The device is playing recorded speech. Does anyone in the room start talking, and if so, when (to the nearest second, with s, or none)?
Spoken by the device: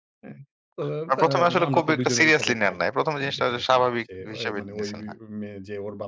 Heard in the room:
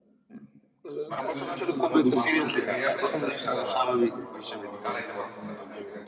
1 s